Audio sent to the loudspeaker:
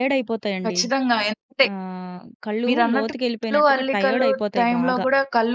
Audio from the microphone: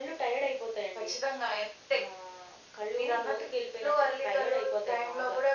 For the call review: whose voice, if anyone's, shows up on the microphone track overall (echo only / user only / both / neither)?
echo only